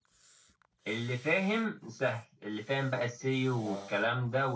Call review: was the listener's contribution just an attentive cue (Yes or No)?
Yes